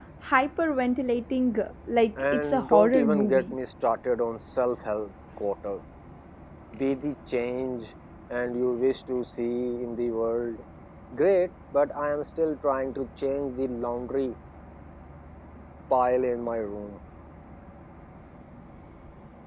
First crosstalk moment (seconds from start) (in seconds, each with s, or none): 2.2 s